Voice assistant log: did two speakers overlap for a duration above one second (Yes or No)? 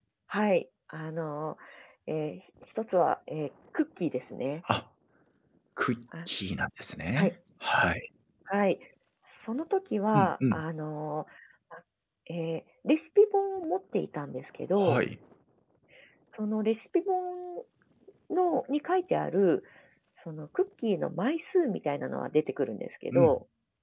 No